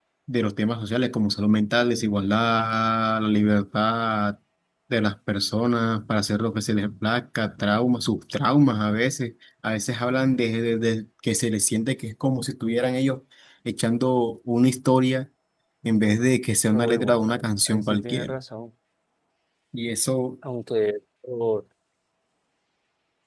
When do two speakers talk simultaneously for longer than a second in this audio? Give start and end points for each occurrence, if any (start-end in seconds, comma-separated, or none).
16.7-18.4